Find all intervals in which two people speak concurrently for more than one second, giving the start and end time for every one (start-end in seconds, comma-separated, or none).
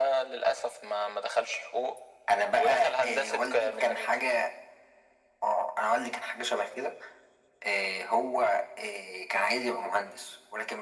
2.6-4.1